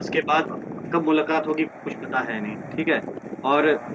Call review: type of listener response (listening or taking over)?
listening